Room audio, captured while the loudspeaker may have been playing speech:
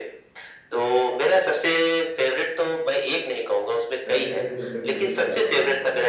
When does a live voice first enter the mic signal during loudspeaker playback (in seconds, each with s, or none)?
4.1 s